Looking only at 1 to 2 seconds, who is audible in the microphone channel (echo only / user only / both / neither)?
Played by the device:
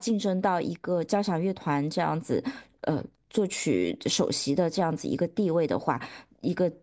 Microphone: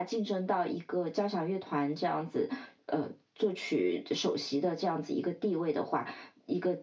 echo only